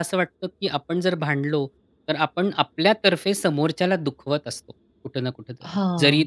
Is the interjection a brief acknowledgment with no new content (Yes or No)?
Yes